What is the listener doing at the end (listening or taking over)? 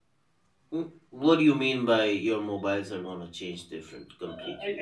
taking over